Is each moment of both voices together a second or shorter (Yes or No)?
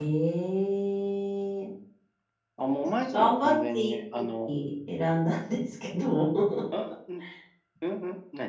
No